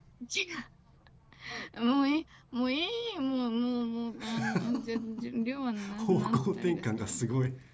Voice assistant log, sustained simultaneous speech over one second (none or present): present